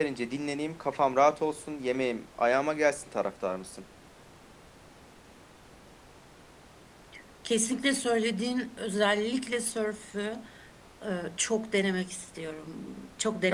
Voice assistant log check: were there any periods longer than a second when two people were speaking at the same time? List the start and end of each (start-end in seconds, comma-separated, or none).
none